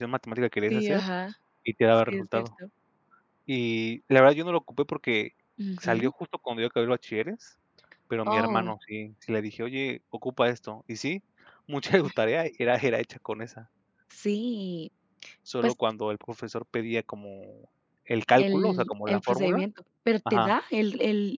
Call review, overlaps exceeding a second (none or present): present